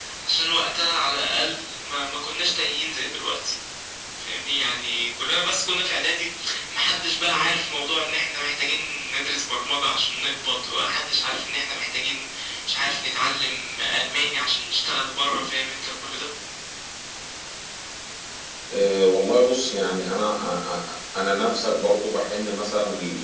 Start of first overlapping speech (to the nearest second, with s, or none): none